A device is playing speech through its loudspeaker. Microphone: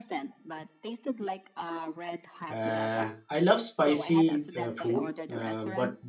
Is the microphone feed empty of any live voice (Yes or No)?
No